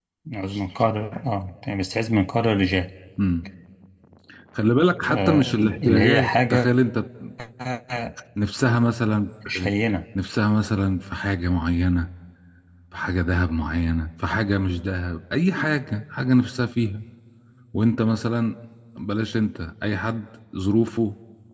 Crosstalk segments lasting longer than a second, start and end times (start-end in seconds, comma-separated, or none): 5.0-6.7